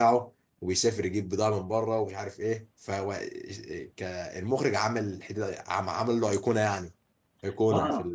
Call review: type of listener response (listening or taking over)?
taking over